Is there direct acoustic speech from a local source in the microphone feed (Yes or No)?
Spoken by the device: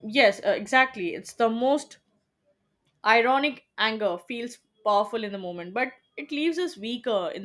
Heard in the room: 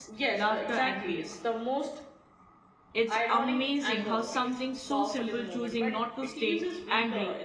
Yes